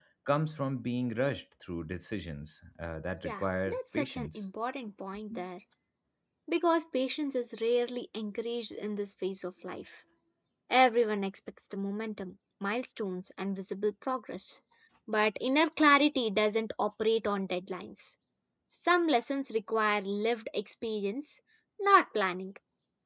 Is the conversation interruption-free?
No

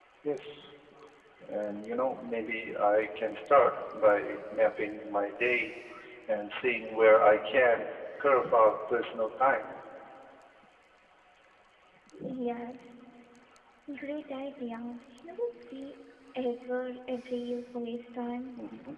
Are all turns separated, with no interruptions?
Yes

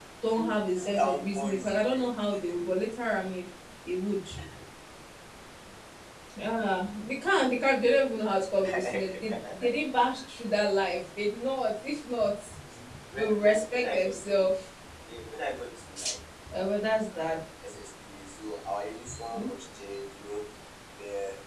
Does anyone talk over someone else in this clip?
Yes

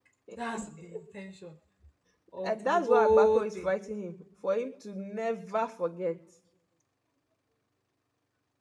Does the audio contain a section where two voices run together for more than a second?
Yes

